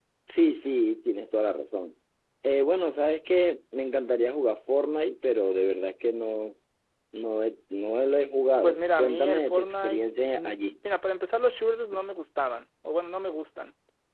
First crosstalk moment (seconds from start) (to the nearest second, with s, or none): 9 s